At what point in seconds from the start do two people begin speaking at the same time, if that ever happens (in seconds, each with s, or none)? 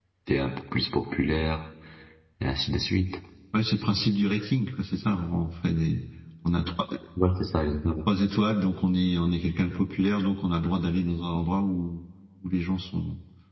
none